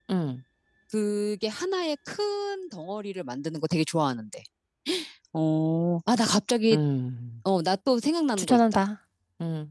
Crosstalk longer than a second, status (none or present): none